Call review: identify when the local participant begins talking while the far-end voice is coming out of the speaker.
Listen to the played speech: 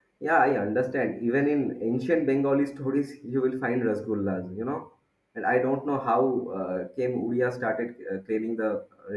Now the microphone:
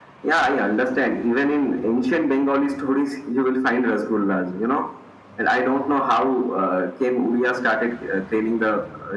none

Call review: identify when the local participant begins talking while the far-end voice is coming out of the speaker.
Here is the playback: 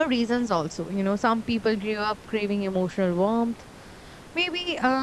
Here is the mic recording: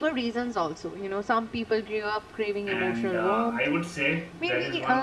3 s

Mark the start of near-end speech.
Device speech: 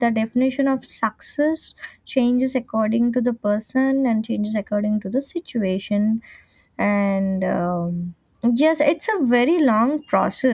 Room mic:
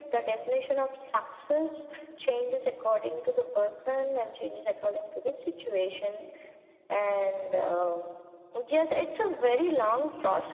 none

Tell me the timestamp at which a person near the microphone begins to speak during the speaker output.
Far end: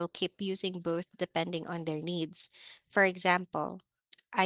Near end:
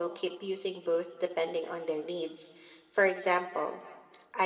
none

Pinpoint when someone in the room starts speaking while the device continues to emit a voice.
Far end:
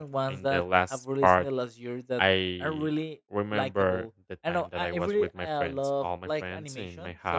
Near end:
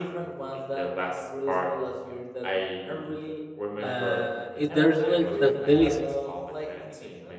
4 s

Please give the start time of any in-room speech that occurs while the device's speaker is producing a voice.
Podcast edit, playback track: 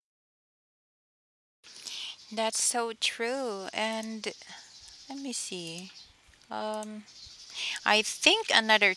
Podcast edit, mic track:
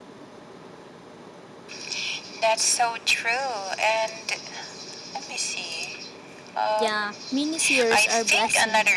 7 s

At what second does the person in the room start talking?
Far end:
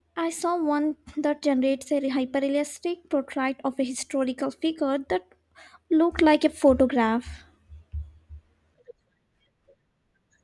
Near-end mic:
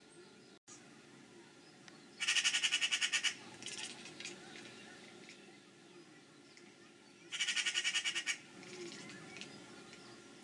none

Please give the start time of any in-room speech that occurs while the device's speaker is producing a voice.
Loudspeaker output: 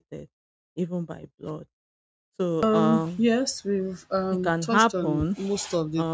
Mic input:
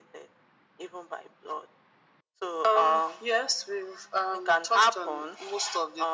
none

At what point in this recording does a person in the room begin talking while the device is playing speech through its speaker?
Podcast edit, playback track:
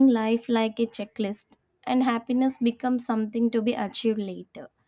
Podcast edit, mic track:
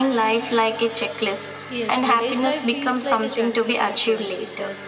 2 s

